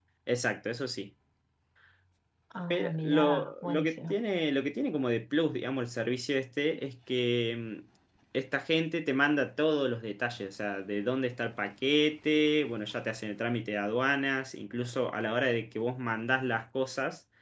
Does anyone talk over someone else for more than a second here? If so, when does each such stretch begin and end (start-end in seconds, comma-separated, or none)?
2.7-4.2